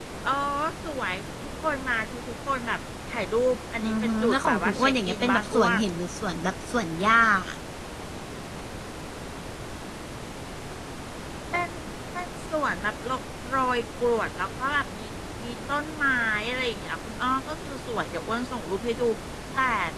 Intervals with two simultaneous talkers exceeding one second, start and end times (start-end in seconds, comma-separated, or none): 3.8-5.8